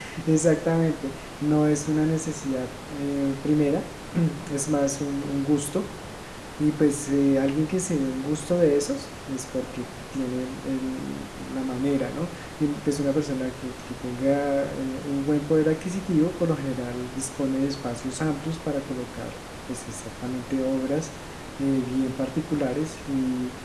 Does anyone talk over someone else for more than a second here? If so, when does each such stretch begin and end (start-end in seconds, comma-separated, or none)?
none